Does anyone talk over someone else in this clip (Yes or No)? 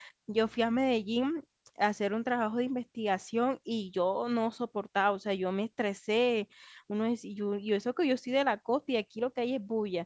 No